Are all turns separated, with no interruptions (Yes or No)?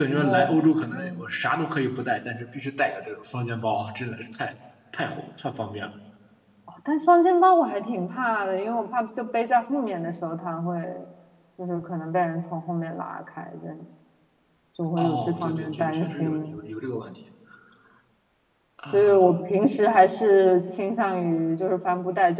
No